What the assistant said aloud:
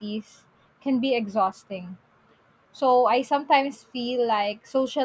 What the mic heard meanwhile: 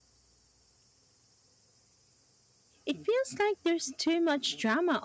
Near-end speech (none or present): present